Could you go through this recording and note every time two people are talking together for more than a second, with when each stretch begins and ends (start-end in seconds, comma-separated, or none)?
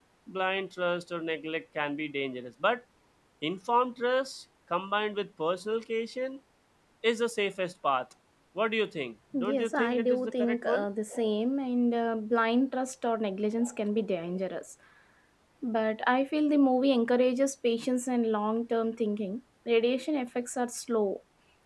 9.5-10.8